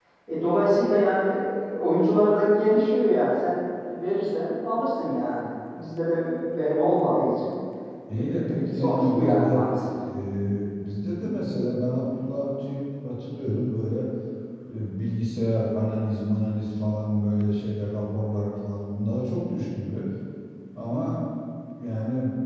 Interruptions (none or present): present